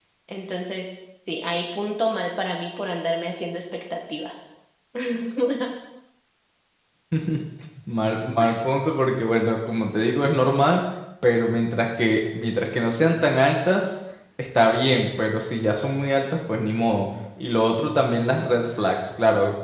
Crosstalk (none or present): none